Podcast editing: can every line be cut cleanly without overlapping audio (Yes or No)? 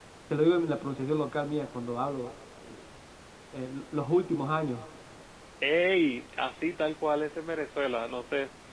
Yes